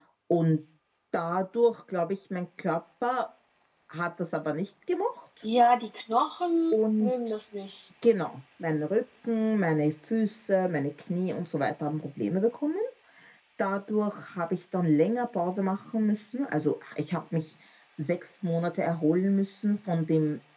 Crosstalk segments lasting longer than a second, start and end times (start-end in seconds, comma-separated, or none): none